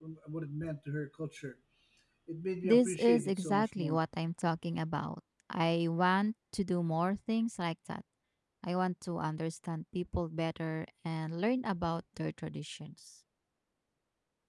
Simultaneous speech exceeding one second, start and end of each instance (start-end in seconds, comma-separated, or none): 2.6-4.0